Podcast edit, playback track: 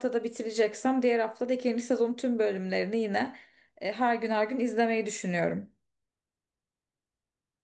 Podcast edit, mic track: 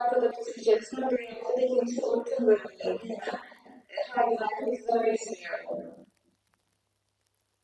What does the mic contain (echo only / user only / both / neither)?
echo only